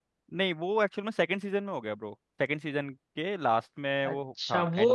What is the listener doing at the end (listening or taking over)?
taking over